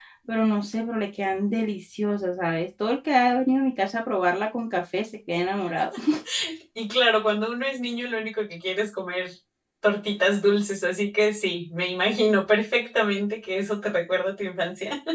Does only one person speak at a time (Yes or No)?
Yes